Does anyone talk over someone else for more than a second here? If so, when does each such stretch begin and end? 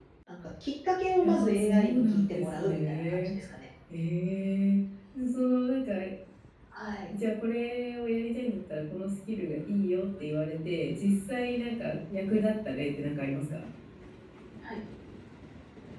1.2-3.3

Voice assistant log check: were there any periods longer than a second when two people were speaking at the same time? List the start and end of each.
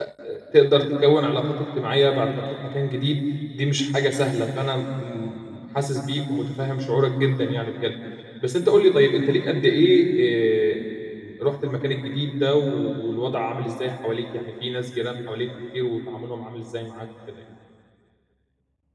none

